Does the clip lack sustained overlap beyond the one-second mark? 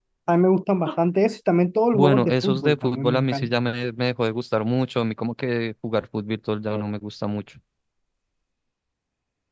No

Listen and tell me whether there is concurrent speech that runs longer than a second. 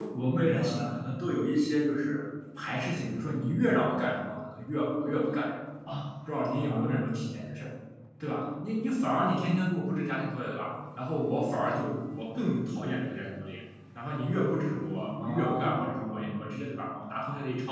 Yes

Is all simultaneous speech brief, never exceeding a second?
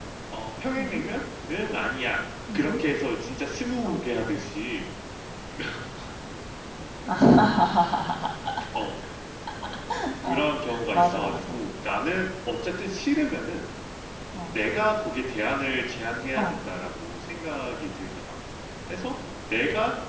No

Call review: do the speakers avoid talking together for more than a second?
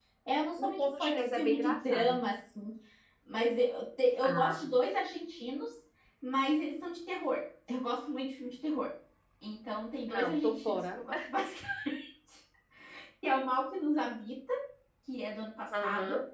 No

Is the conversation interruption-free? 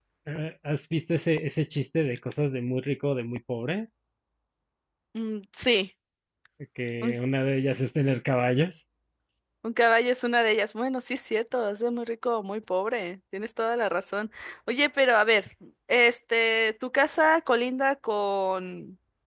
Yes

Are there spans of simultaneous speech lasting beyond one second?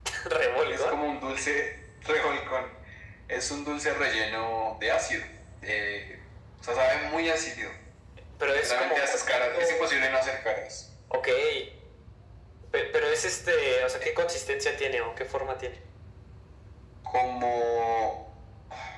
Yes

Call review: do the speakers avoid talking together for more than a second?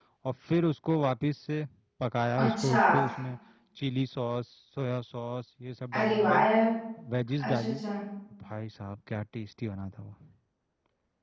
Yes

